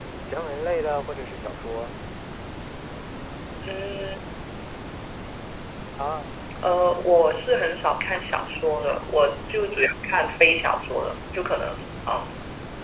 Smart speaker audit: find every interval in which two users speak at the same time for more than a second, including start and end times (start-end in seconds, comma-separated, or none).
none